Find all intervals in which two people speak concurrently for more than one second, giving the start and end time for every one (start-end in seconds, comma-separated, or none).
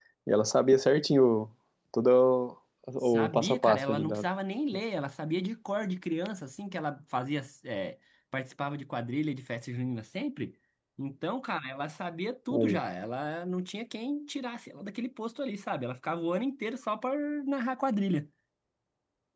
3.0-4.2